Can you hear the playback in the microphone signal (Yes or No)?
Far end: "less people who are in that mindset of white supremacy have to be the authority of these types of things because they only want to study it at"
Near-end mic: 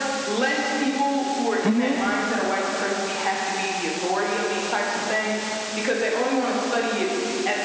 Yes